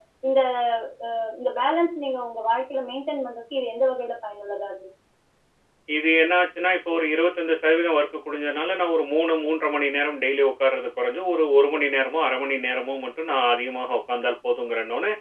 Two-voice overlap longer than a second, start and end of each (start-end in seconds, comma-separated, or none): none